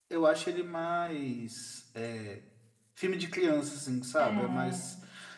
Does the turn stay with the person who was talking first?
Yes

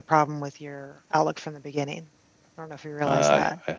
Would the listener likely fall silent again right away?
No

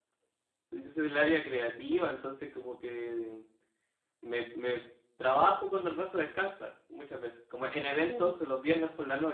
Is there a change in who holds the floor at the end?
No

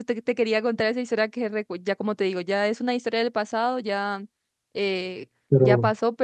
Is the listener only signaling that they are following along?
Yes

